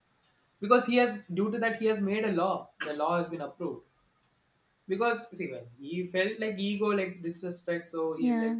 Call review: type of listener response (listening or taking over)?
listening